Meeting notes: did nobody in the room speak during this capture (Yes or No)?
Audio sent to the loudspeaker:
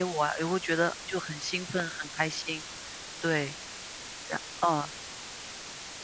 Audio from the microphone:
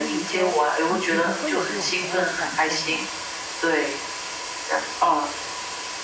No